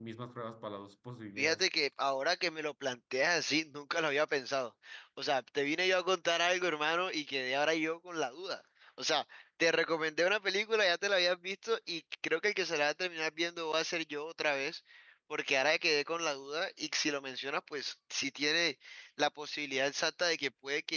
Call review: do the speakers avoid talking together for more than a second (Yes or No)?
Yes